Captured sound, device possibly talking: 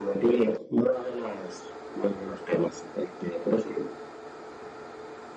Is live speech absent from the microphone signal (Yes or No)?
Yes